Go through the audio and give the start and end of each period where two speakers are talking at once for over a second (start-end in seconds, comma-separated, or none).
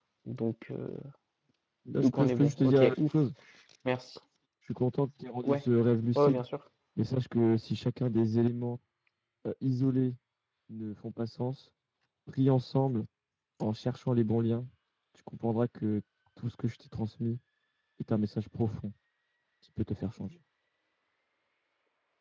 2.0-3.2